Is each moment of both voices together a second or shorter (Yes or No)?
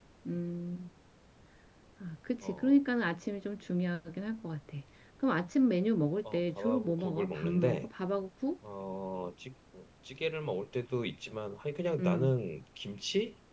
No